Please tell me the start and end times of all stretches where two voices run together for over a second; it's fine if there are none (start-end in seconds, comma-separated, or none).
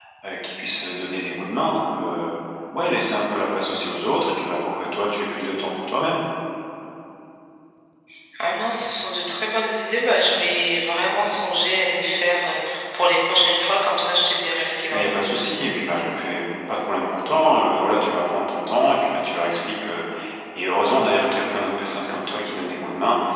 none